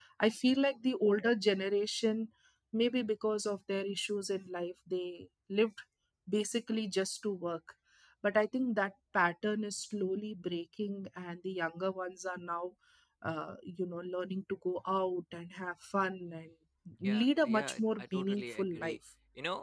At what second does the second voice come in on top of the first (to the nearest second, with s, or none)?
17 s